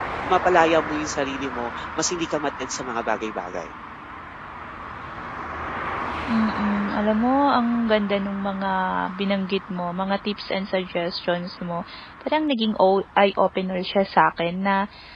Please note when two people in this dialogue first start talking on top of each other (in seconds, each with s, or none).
none